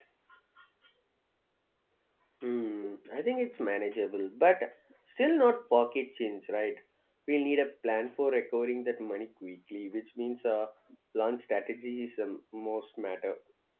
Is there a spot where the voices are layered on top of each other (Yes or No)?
No